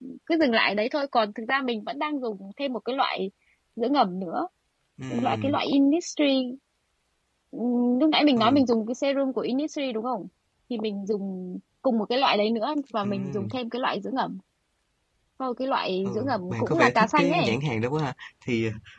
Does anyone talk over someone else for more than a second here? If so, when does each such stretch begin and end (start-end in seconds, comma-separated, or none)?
16.0-17.6